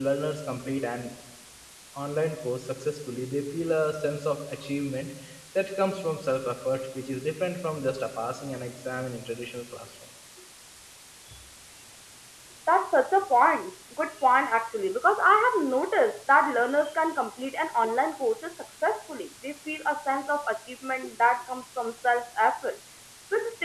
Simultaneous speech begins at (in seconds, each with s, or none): none